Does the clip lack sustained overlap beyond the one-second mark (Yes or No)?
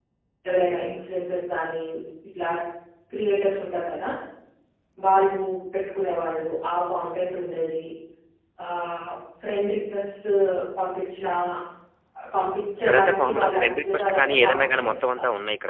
No